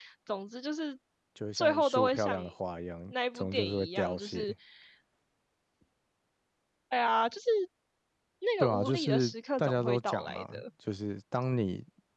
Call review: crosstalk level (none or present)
present